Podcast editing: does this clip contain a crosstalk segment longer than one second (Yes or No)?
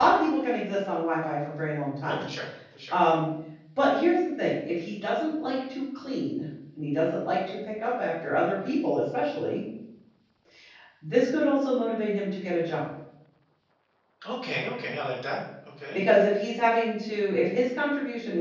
No